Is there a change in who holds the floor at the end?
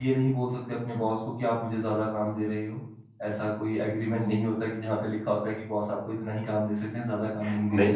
Yes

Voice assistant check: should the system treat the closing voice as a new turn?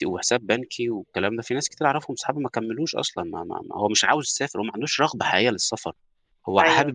No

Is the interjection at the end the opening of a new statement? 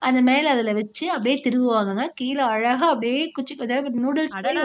Yes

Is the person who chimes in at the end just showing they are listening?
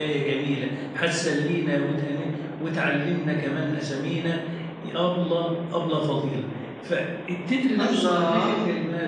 Yes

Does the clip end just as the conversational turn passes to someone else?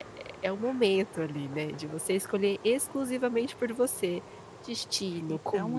Yes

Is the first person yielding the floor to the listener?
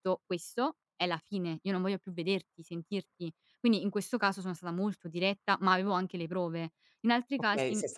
Yes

